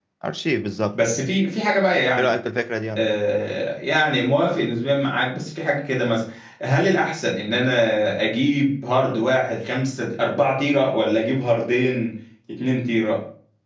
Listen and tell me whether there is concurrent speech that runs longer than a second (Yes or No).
No